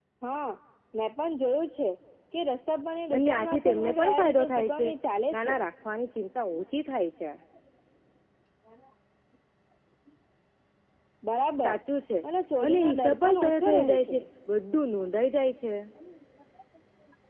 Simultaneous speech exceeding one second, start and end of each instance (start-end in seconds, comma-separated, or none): 3.1-4.9, 12.6-14.2